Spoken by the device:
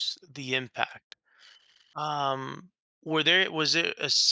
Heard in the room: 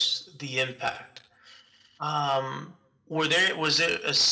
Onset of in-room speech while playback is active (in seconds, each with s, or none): none